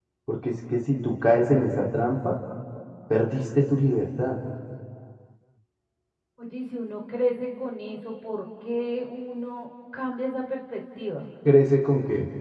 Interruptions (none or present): none